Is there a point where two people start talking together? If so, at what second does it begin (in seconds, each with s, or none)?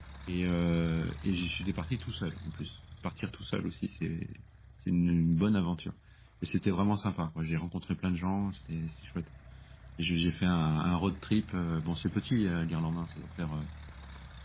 none